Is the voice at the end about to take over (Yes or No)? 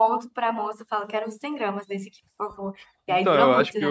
Yes